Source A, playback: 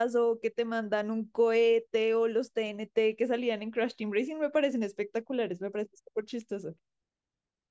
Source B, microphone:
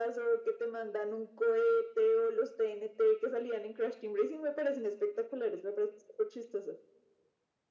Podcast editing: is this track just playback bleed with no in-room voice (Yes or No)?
Yes